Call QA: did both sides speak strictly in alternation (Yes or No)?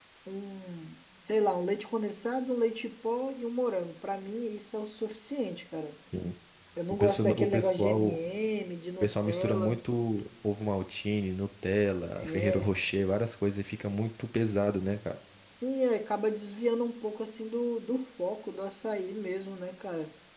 No